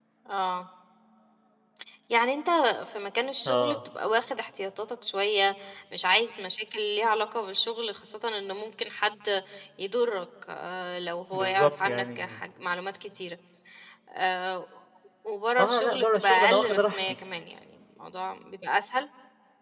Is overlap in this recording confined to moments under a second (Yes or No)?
No